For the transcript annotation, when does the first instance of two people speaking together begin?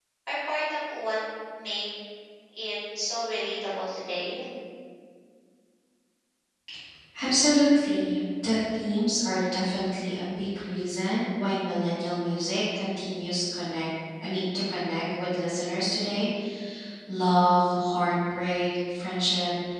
none

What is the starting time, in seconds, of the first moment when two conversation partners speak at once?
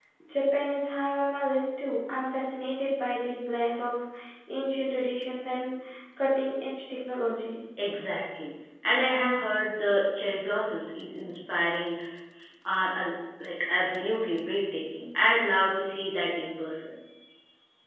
none

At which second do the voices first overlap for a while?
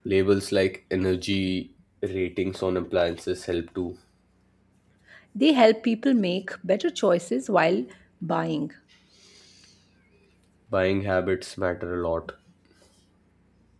none

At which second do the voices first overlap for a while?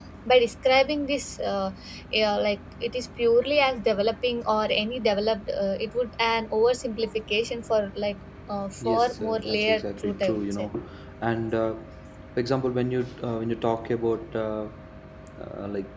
8.8 s

